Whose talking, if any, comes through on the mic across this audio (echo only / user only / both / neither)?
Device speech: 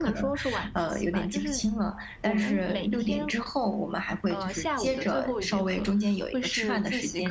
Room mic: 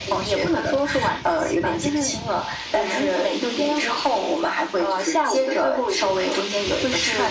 echo only